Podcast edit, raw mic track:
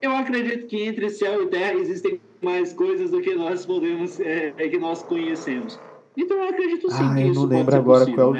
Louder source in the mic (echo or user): user